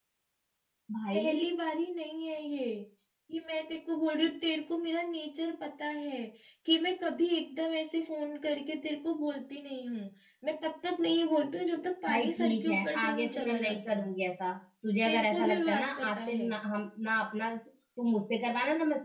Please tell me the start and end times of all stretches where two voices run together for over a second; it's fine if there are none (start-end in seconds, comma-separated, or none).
12.1-14.1, 15.0-16.5